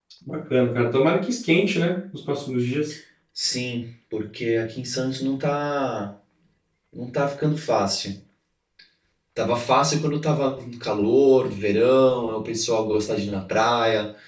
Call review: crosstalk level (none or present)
none